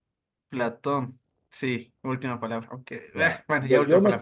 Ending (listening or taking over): taking over